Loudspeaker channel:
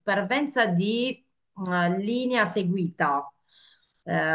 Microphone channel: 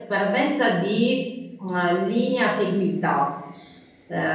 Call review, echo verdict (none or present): present